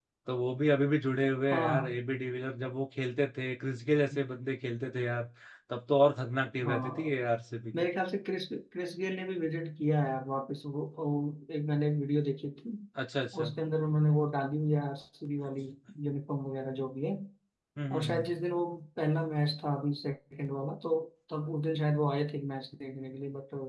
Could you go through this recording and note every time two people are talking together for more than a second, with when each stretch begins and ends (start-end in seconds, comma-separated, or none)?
none